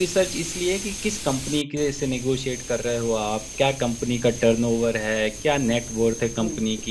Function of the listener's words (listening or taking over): listening